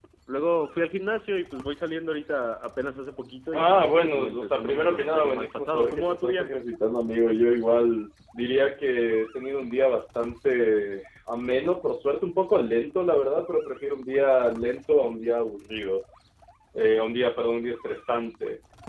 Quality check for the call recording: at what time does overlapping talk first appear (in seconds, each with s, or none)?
3.5 s